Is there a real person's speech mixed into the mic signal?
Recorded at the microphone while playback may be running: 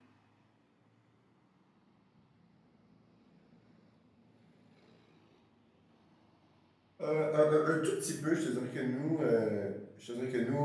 Yes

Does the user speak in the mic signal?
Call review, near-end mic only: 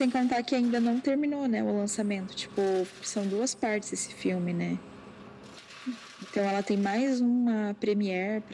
No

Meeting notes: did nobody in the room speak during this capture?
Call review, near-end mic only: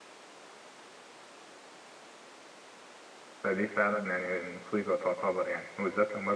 No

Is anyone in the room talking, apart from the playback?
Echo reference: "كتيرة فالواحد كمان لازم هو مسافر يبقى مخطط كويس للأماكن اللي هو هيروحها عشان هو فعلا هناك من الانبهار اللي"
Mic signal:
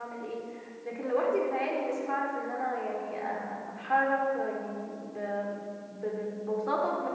Yes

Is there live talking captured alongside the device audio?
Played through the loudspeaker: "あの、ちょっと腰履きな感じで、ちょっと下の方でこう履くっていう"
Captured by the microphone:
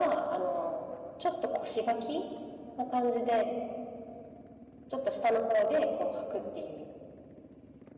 No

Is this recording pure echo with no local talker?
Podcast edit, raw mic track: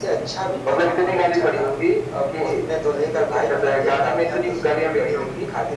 Yes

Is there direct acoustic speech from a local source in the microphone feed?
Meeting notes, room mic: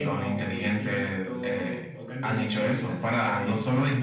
No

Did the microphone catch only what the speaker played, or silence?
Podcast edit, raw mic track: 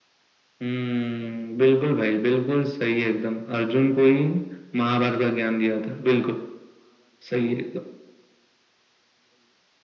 Yes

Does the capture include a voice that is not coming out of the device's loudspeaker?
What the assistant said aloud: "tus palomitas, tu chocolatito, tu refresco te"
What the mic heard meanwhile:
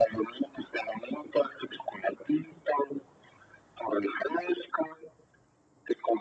No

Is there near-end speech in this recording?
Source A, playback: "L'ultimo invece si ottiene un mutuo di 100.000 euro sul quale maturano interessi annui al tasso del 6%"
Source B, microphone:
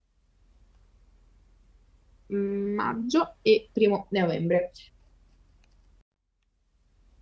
Yes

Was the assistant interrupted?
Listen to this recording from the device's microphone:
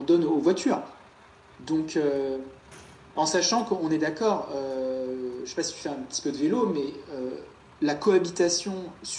No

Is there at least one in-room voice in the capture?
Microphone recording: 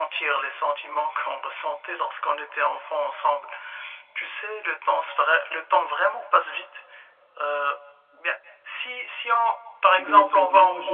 Yes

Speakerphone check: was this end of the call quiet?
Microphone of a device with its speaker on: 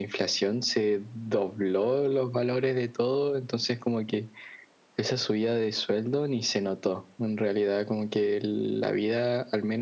Yes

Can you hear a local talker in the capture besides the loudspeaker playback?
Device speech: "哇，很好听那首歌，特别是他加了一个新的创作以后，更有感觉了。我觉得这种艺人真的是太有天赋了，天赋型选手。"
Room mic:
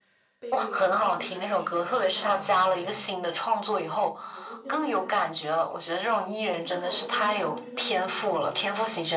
Yes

